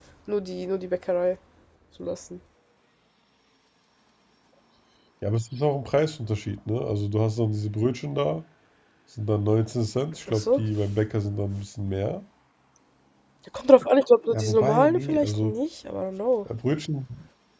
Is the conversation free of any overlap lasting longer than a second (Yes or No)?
No